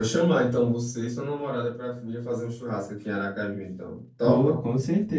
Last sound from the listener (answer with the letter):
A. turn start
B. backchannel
A